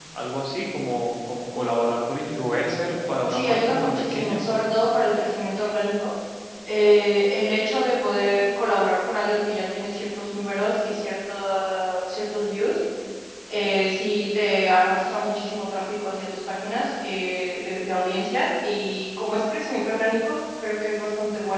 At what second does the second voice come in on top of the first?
3 s

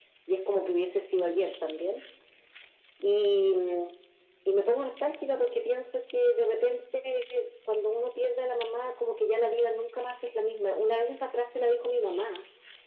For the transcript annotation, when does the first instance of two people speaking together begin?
none

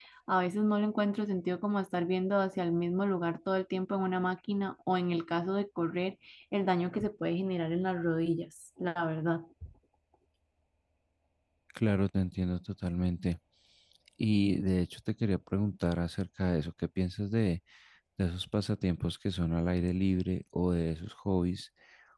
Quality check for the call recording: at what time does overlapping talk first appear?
none

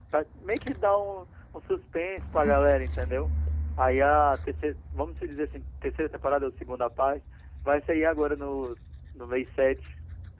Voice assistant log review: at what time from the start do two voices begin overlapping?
none

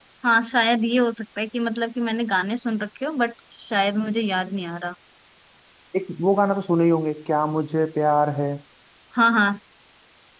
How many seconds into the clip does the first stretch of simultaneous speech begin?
none

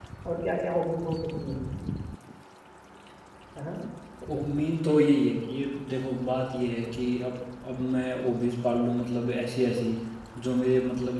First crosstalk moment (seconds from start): none

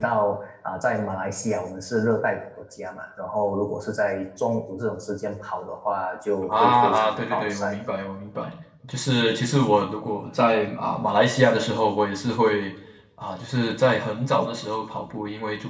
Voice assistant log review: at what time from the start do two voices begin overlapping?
6 s

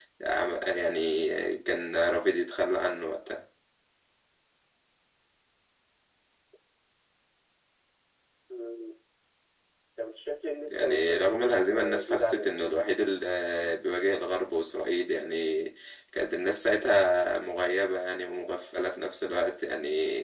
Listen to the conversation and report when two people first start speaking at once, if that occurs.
11 s

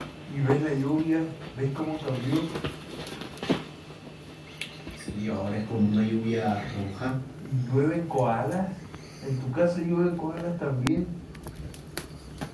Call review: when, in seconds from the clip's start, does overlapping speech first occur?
none

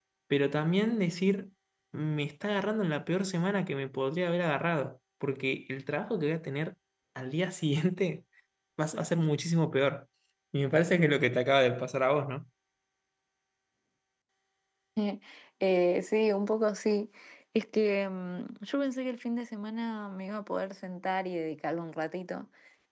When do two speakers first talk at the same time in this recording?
none

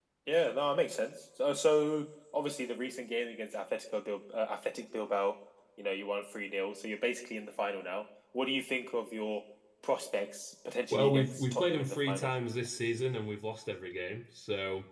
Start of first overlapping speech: 11 s

